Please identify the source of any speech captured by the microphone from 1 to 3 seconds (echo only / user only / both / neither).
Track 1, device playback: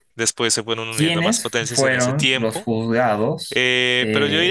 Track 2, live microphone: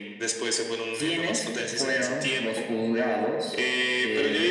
echo only